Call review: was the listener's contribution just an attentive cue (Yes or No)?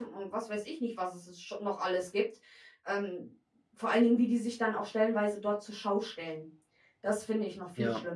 No